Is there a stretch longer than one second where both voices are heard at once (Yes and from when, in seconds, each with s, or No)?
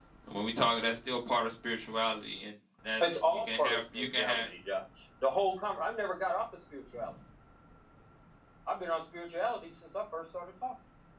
Yes, from 3.0 s